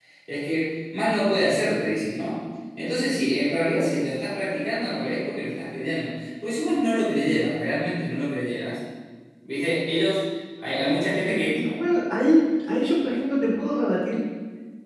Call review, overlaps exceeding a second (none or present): none